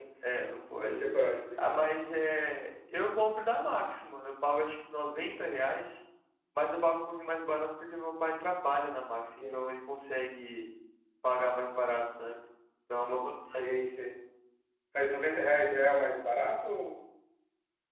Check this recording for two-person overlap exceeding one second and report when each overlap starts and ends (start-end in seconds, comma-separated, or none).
none